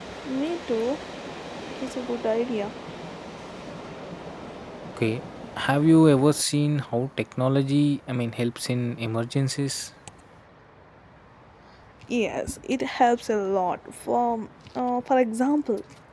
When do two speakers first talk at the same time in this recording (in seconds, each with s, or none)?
none